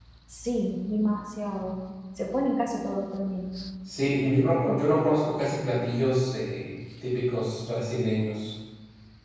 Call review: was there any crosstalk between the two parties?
No

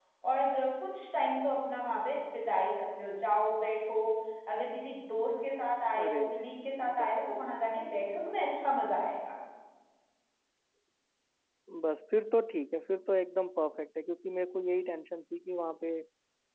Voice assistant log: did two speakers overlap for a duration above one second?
No

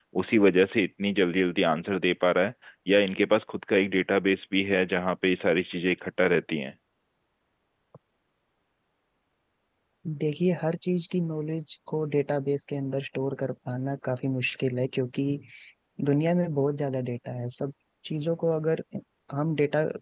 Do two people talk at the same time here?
No

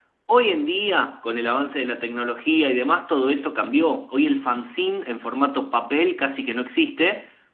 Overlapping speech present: No

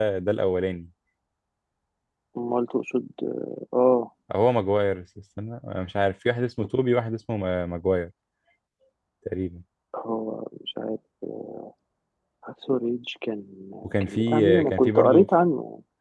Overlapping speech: Yes, from 14.0 s

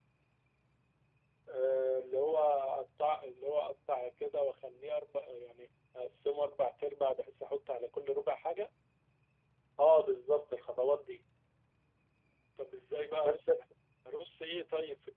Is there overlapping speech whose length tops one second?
No

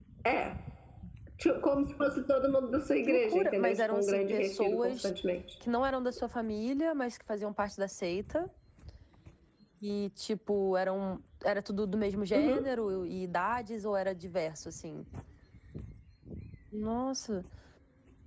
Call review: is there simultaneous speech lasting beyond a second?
Yes, from 3.1 s

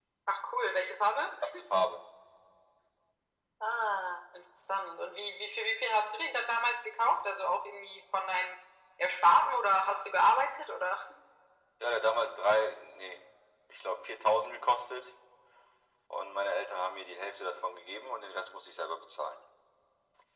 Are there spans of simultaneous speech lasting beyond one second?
No

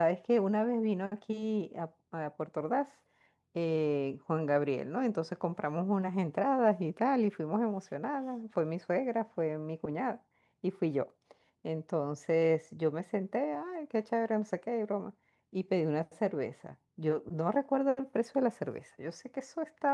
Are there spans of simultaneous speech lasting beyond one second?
No

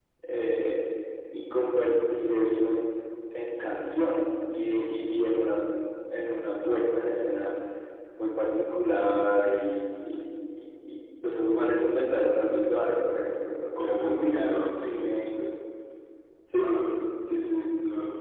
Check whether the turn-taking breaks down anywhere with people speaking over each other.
Yes, from 13.6 s

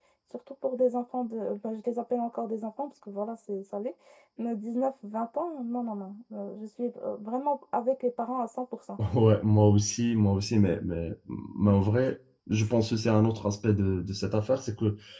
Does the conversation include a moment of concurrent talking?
No

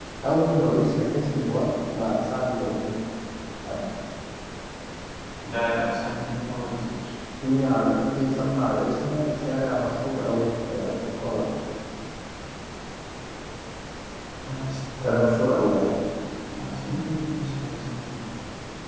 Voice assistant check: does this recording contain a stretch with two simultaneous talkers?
No

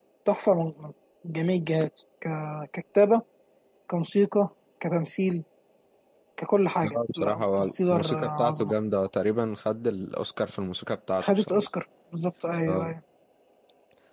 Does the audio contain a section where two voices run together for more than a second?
Yes, from 6.8 s

